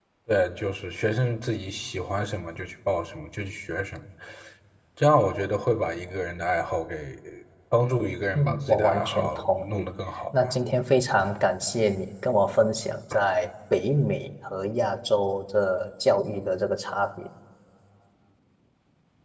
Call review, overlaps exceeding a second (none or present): present